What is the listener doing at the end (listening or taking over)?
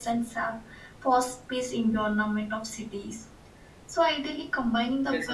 listening